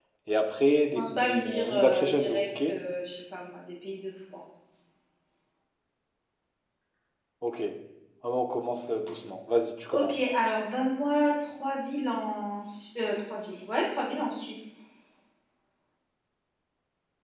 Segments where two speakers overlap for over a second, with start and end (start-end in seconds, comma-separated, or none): 1.0-2.5